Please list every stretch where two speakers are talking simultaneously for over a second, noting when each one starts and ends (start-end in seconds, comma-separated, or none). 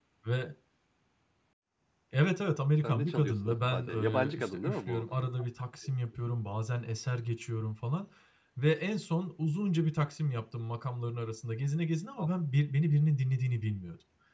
2.8-5.3